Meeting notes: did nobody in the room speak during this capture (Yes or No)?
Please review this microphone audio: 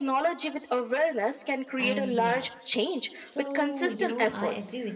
No